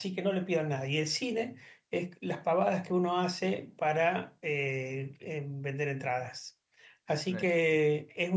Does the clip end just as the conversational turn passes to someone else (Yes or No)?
No